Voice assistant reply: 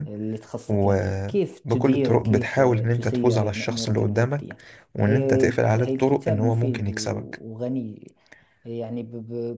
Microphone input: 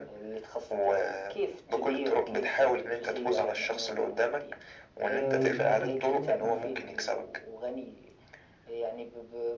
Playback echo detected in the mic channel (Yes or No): Yes